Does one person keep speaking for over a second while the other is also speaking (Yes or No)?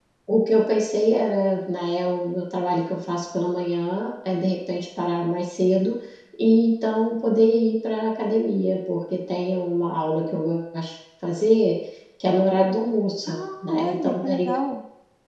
Yes